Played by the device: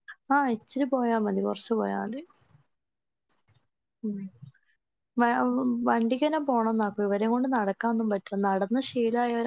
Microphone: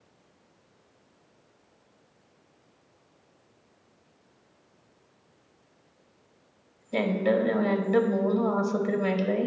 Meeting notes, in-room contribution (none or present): present